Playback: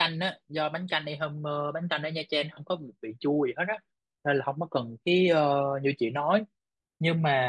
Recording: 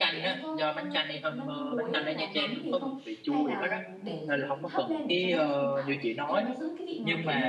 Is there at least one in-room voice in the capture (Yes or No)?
Yes